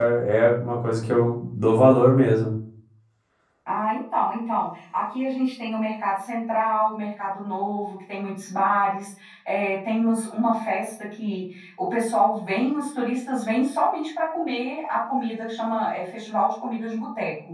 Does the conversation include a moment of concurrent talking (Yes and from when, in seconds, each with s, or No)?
No